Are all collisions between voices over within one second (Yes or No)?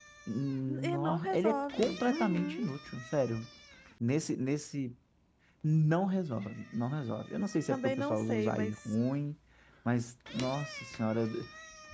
No